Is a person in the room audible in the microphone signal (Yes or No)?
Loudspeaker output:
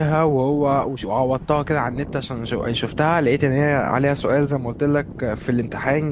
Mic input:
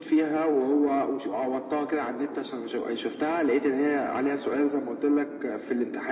No